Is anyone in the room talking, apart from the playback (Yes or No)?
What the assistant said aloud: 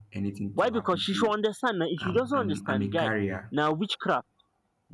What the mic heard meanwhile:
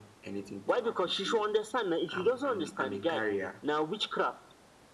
No